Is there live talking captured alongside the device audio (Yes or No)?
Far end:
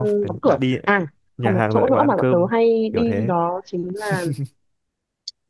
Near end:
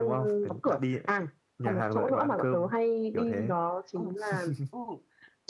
Yes